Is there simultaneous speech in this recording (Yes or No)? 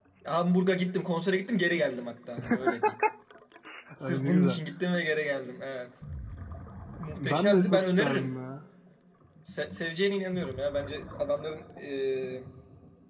Yes